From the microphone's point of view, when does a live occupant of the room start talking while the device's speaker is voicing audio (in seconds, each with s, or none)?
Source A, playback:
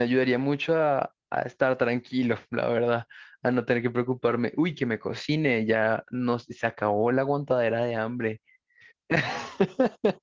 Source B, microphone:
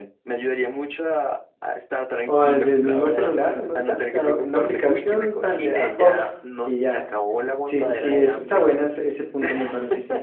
2.2 s